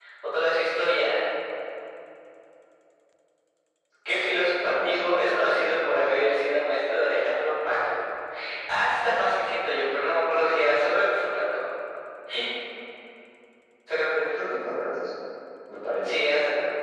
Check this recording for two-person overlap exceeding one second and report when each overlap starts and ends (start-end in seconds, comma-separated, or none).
4.1-5.6